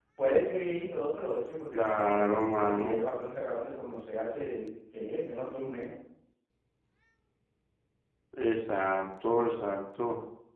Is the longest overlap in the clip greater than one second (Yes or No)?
Yes